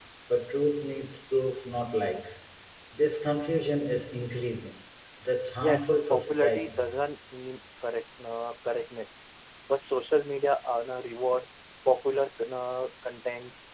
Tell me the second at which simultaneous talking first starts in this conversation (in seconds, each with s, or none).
5.6 s